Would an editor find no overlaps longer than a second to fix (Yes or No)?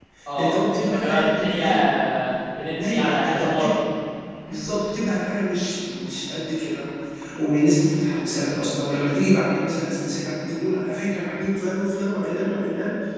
No